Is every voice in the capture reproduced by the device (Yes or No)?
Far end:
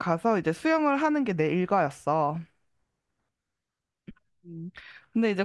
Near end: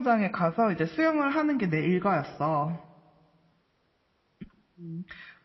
Yes